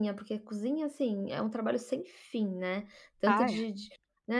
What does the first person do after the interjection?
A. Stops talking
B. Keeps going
B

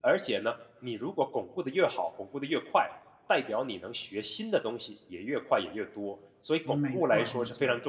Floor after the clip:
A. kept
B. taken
B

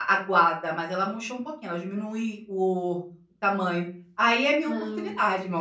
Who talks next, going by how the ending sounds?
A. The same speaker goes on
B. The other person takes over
A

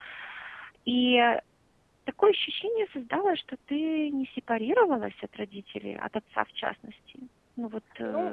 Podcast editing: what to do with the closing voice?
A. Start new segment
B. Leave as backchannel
A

